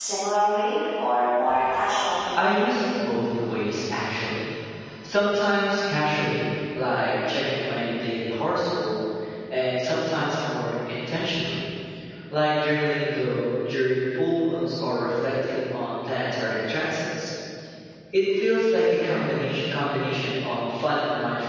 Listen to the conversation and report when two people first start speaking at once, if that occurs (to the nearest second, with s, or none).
none